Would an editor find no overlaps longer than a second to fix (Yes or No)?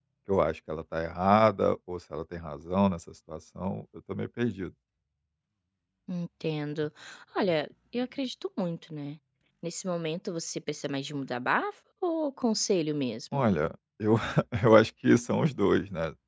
Yes